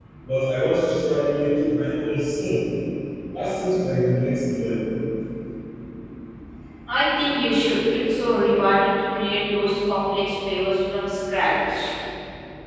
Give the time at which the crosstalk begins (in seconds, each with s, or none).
none